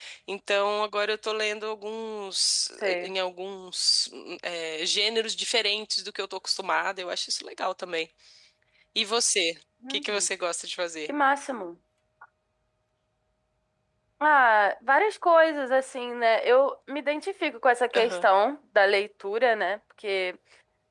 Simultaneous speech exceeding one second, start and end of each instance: none

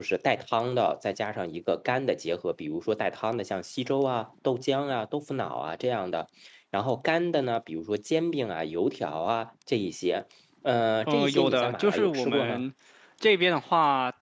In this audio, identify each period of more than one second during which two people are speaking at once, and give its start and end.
11.1-12.6

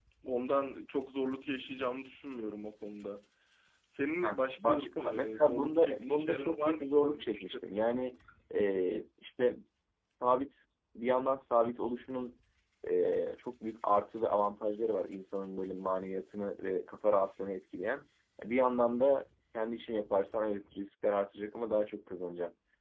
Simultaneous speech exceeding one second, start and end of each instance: 4.2-8.0

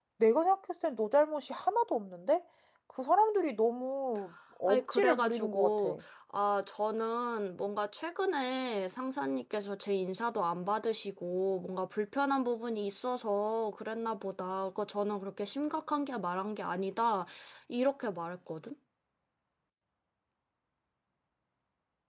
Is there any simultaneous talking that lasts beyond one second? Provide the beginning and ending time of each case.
4.7-5.9

